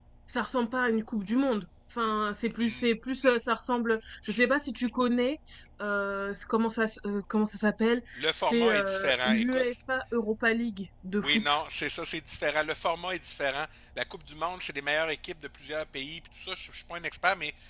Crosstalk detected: Yes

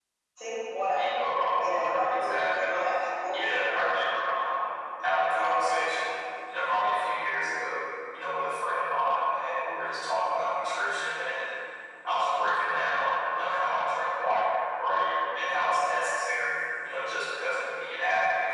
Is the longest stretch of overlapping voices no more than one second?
No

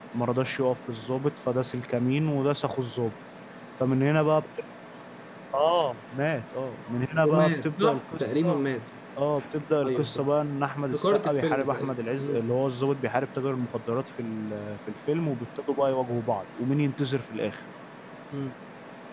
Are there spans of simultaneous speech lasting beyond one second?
Yes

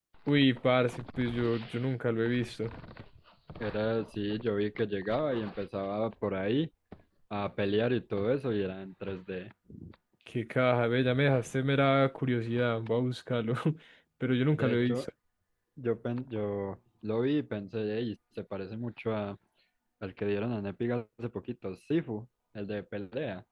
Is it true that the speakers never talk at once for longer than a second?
Yes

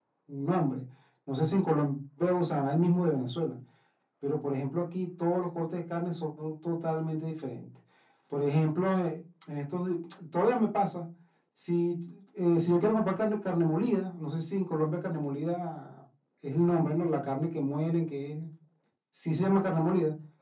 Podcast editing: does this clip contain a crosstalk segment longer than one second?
No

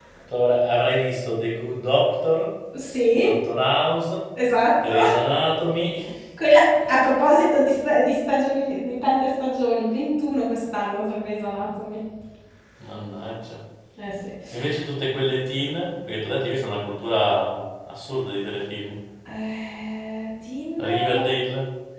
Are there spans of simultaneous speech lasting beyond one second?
No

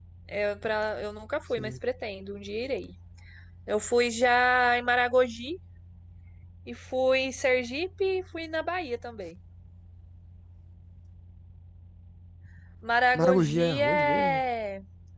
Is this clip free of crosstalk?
No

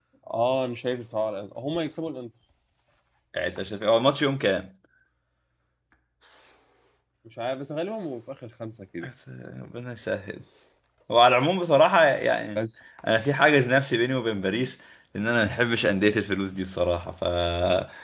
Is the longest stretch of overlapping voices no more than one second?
Yes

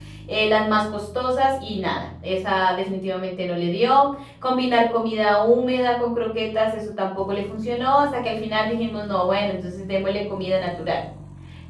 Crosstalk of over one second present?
No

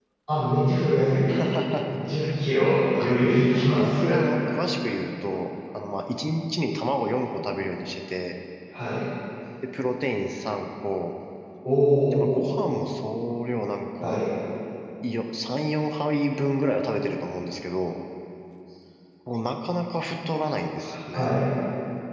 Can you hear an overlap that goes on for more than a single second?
Yes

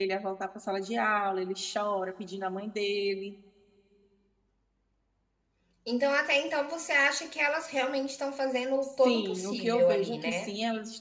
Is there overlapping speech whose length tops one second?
Yes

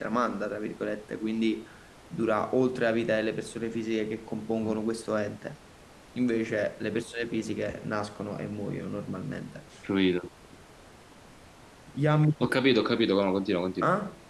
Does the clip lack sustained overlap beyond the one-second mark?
Yes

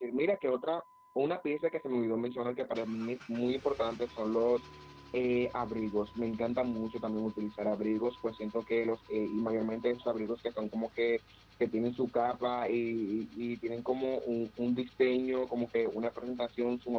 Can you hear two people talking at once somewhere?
No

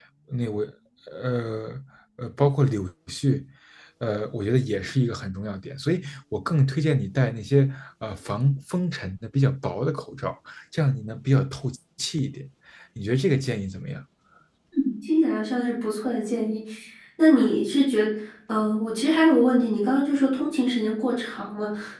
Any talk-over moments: No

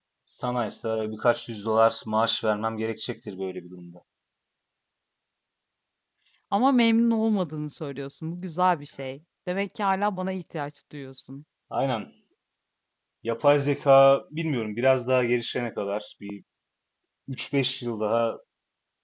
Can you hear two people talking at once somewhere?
No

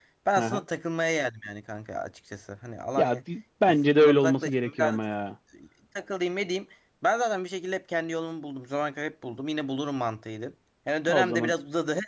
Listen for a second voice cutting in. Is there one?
Yes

